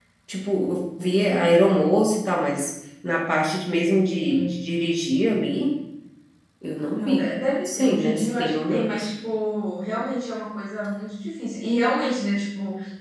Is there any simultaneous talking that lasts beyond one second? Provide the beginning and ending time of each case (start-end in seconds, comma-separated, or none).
7.7-8.9